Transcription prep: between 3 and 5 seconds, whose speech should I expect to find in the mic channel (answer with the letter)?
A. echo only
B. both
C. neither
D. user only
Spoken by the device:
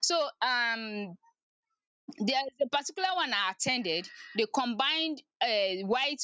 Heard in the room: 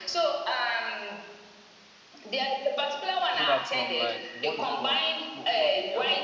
B